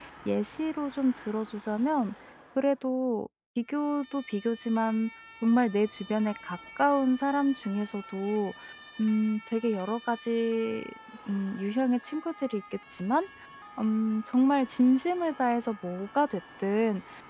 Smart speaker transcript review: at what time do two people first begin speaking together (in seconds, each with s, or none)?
none